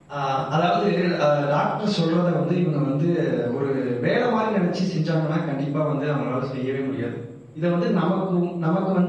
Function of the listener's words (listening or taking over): listening